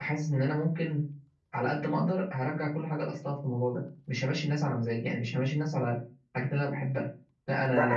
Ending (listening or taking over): taking over